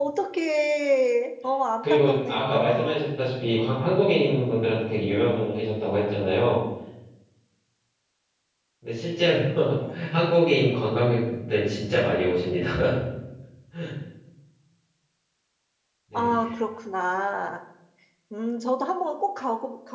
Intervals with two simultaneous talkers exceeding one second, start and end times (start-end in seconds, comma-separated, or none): 1.8-3.1